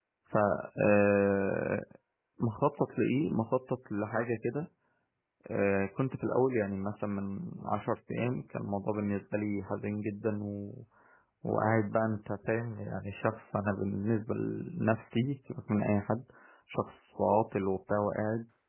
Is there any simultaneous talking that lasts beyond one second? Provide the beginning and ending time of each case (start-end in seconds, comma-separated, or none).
none